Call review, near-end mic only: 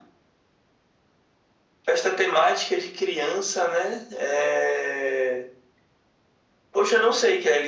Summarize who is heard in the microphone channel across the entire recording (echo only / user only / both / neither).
echo only